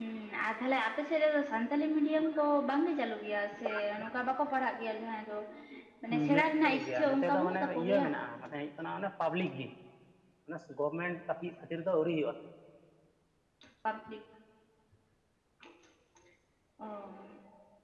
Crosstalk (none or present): present